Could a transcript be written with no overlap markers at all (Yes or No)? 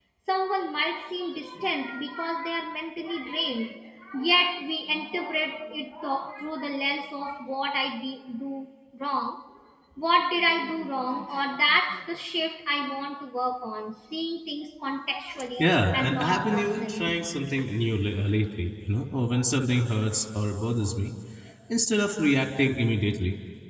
No